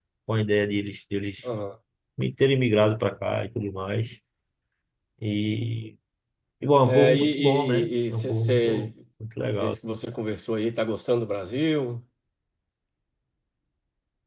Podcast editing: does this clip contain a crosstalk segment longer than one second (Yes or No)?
Yes